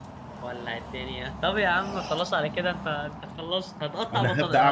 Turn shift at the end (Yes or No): Yes